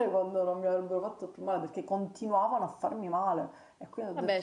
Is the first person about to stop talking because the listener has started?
Yes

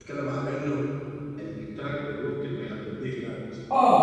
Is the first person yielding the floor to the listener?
Yes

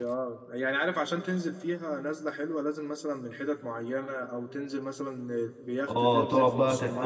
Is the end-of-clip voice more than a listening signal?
Yes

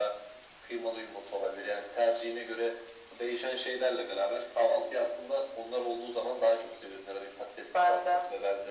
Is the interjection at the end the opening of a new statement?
No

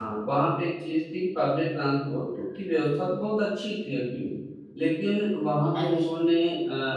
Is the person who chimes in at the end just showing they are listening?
Yes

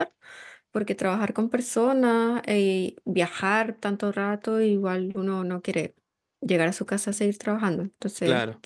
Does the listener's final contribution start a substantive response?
No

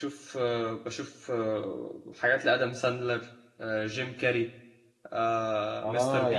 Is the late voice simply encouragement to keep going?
No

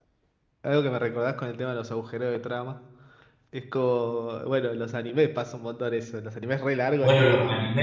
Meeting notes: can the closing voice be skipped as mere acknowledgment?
No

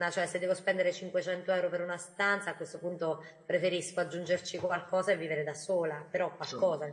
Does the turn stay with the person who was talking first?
Yes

